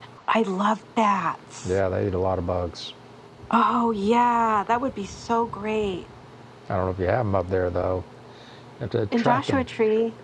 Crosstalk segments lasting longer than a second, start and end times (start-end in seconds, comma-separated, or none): none